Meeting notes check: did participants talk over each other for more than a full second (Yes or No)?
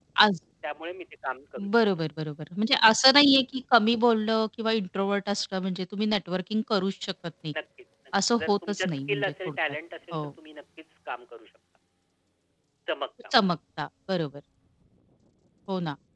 Yes